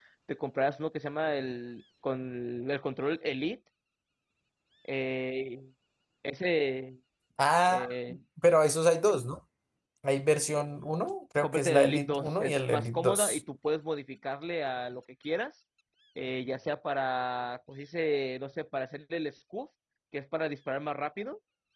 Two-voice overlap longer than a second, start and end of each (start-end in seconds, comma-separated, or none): 11.4-13.4